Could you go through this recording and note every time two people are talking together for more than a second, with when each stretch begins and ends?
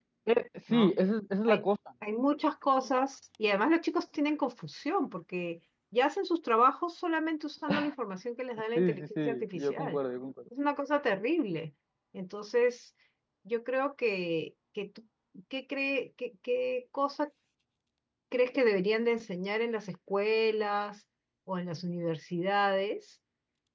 8.8-10.0

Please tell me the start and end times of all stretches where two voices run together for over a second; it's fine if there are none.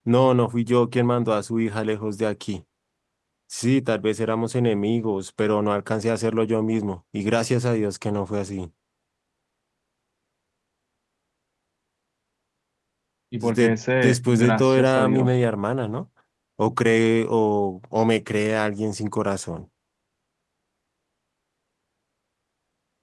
13.4-15.3

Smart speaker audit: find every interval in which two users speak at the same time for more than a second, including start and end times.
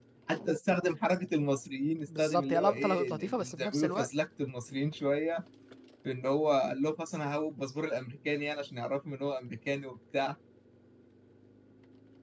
2.2-4.1

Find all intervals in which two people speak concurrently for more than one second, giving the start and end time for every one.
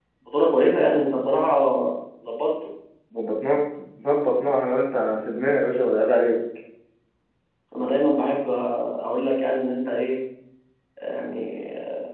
none

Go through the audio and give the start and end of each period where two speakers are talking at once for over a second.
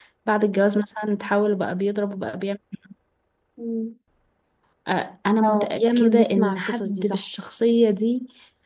5.4-7.2

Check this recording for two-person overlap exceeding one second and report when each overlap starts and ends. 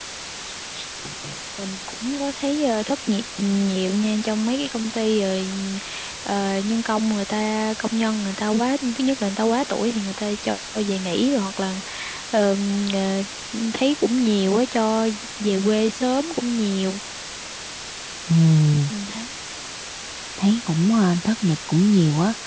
none

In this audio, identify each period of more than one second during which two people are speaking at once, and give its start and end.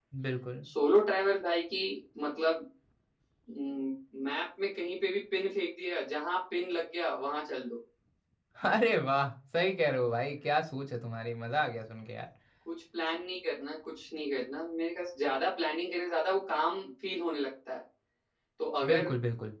none

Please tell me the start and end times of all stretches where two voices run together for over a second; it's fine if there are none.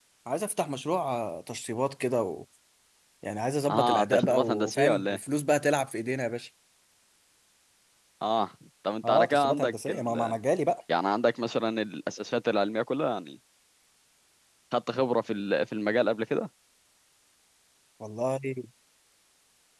3.7-5.2, 9.0-10.4

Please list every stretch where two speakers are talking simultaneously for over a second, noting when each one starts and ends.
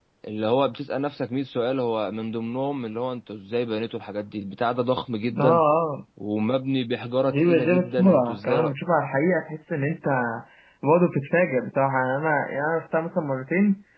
7.3-8.7

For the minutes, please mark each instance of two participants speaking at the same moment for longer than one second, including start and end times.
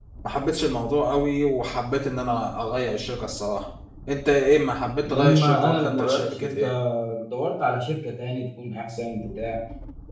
5.1-6.7

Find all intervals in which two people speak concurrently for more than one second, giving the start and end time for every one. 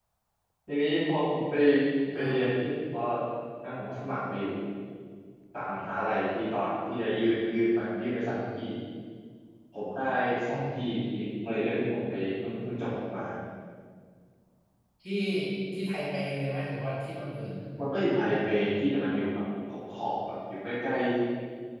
none

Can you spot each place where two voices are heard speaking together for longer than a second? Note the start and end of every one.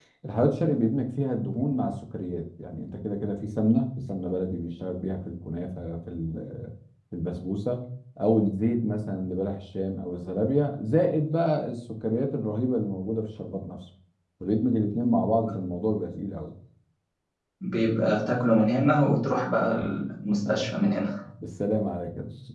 none

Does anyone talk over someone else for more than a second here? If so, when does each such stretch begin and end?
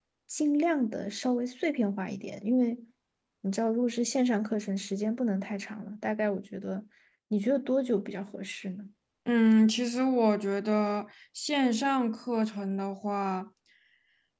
none

